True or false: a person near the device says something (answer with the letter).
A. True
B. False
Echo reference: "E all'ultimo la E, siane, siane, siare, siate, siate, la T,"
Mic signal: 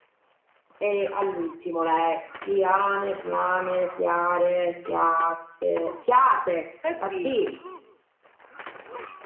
A